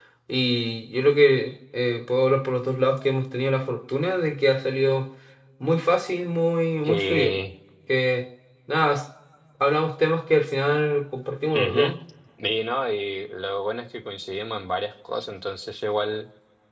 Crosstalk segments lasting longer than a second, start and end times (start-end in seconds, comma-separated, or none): none